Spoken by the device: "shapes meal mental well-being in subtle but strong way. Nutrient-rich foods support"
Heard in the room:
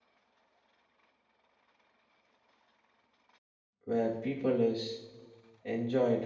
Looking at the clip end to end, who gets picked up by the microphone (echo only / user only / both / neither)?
user only